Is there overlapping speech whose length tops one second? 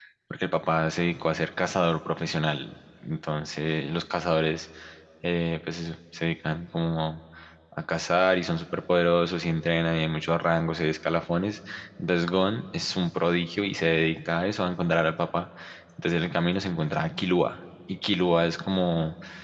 No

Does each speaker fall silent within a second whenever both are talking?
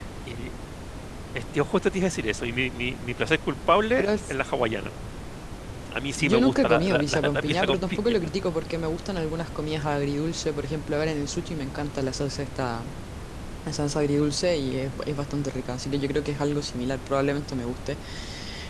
No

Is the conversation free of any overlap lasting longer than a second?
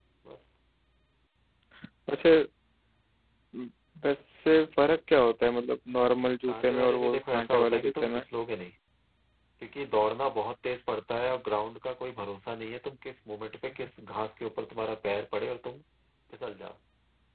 No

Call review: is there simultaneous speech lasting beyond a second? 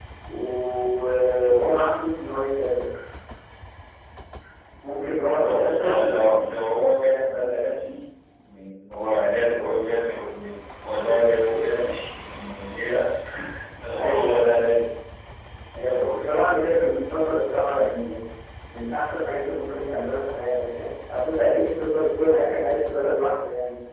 Yes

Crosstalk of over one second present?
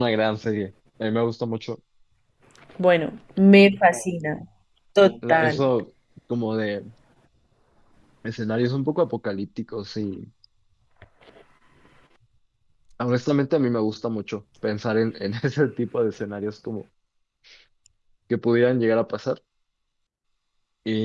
No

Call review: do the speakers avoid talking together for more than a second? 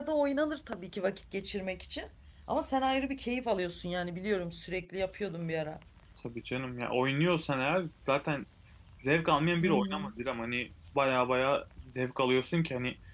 Yes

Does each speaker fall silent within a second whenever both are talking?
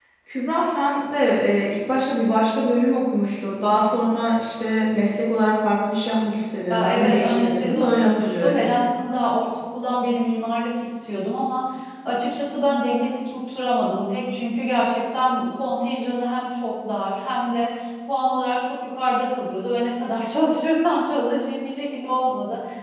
No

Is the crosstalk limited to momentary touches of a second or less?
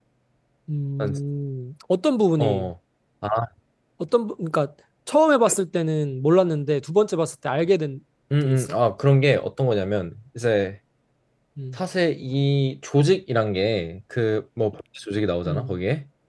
Yes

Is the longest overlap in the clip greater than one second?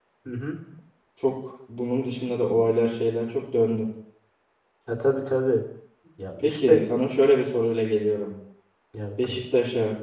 No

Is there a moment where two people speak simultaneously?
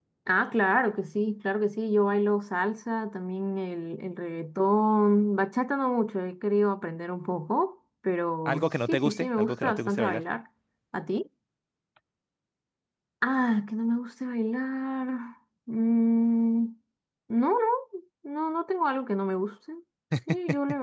Yes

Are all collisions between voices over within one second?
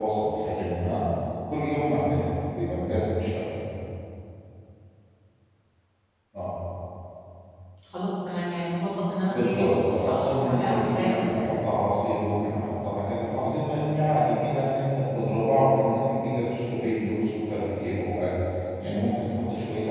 No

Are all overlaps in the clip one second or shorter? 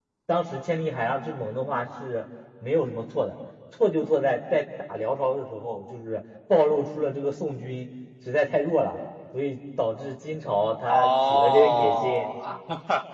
No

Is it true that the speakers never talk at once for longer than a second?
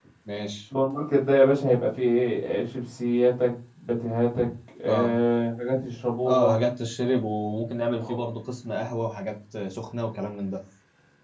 Yes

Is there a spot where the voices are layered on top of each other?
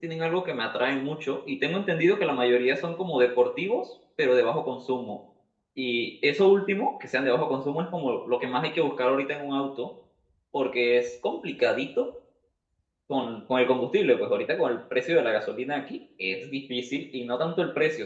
No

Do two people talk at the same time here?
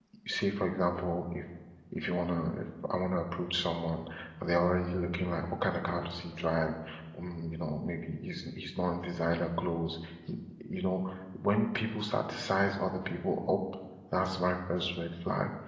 No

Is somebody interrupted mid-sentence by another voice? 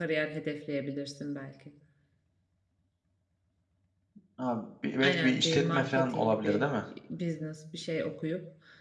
Yes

